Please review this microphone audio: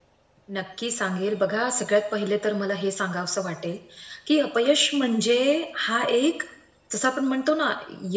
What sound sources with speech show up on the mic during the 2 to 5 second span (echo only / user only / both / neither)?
user only